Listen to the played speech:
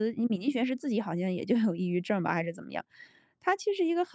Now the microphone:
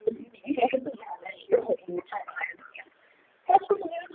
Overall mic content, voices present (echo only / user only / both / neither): echo only